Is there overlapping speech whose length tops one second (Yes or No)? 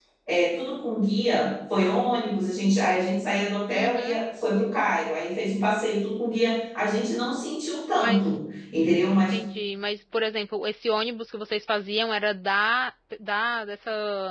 No